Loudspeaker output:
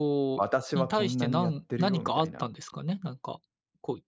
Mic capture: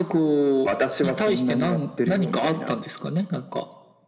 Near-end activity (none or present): none